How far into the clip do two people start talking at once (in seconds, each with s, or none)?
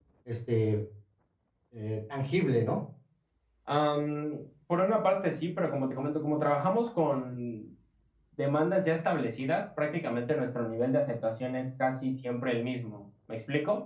none